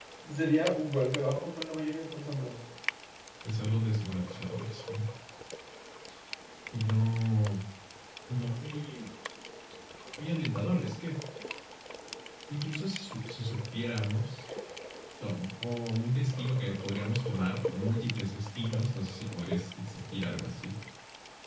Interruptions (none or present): none